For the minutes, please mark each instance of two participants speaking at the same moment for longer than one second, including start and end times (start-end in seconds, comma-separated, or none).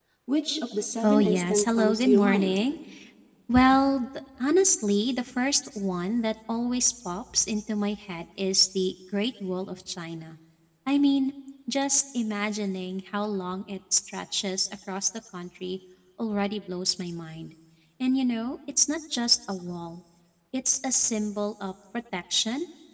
1.0-2.6